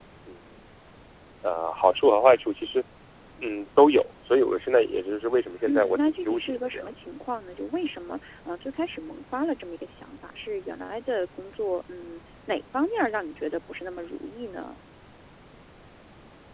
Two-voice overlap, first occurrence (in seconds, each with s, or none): 5.6 s